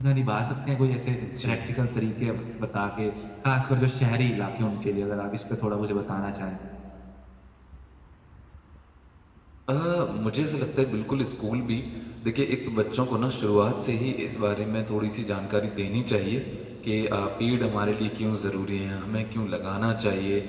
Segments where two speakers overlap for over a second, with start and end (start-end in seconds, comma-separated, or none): none